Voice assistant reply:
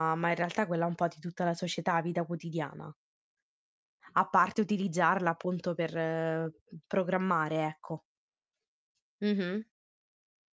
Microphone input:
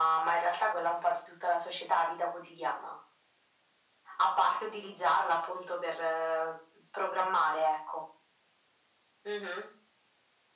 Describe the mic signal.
echo only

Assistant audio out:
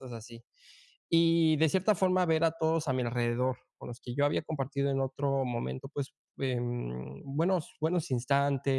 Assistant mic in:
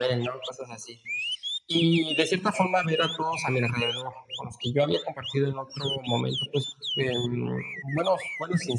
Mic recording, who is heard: echo only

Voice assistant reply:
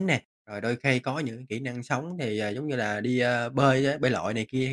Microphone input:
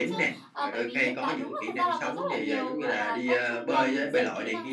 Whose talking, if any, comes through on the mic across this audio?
both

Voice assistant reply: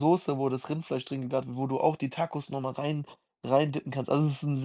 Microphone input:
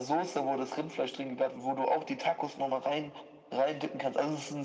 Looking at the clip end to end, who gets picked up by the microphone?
echo only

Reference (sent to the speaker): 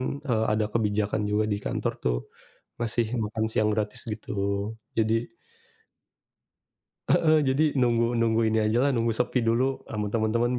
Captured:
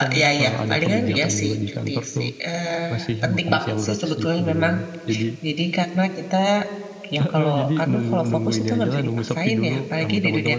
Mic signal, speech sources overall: both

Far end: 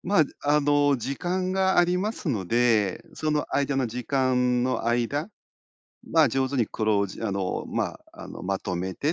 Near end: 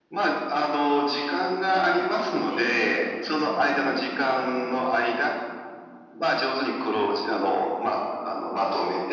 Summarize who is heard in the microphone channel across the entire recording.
both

